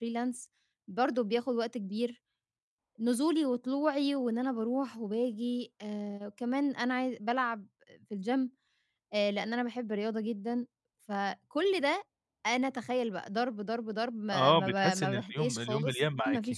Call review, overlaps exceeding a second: present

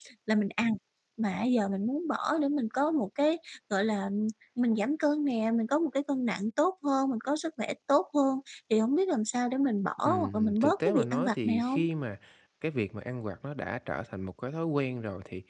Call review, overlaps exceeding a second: present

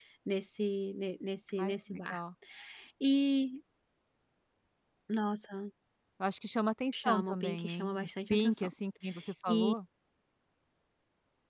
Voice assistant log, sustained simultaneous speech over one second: present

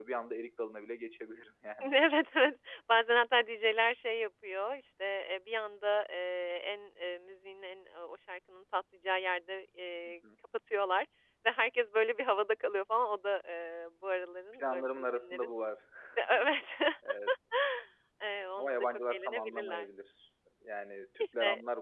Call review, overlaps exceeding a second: present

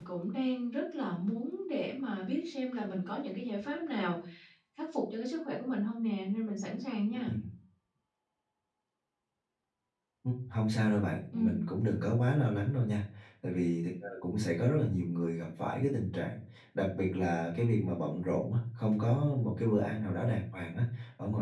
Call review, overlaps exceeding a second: none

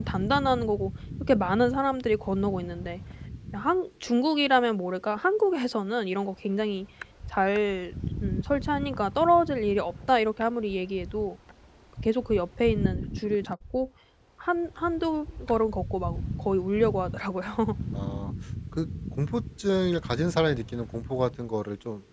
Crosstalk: none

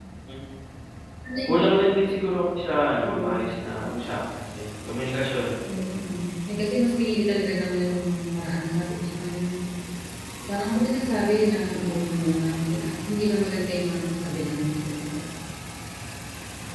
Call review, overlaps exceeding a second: none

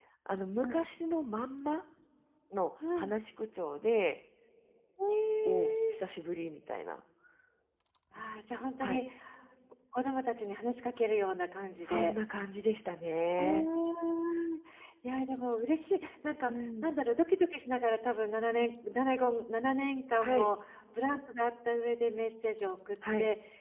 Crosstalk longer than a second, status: none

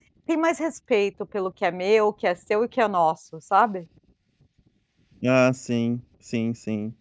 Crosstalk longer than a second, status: none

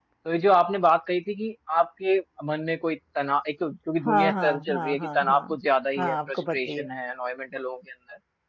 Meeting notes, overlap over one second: present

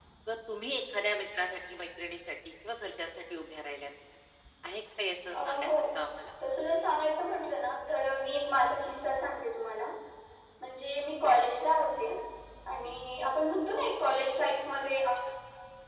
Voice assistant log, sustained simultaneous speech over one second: none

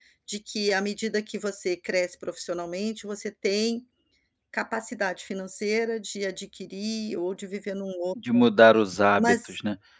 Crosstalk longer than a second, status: none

